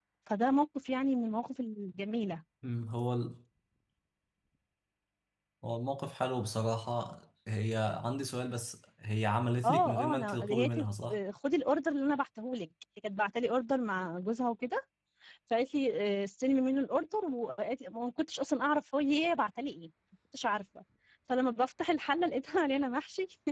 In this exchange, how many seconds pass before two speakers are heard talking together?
9.6 s

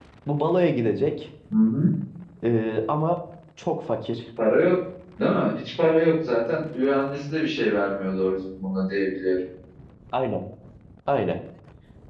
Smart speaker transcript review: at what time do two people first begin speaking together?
none

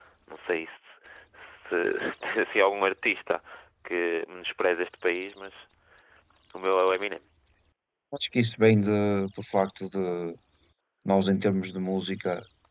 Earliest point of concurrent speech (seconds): none

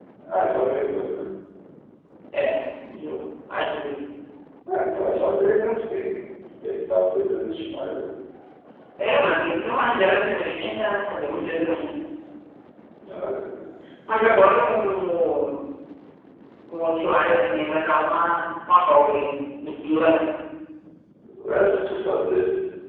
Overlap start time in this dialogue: none

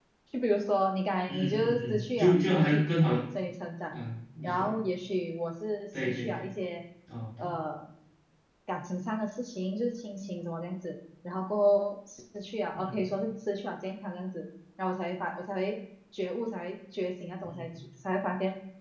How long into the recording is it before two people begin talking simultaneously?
1.3 s

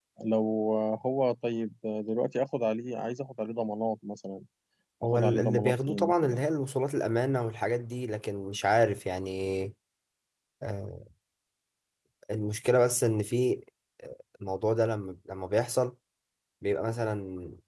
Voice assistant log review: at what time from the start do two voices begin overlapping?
5.0 s

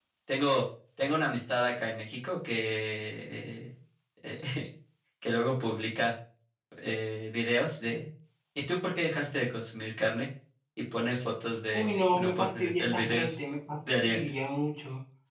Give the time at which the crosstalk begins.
11.7 s

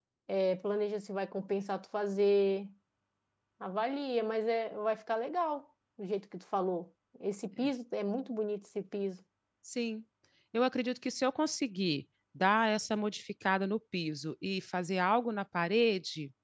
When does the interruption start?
none

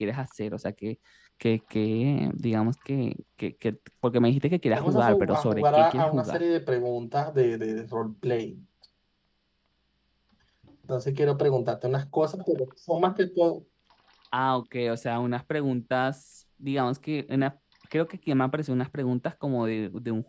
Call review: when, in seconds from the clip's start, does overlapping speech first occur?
4.8 s

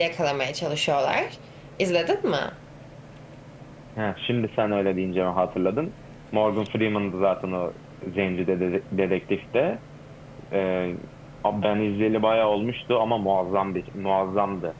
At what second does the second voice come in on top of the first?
none

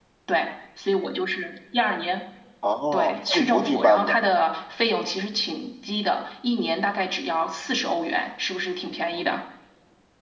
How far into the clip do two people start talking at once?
2.9 s

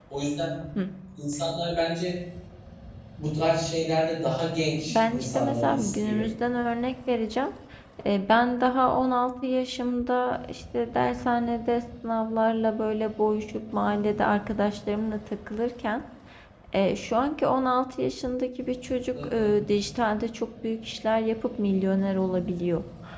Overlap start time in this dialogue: 4.9 s

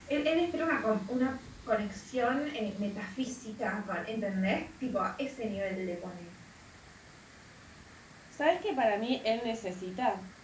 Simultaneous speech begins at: none

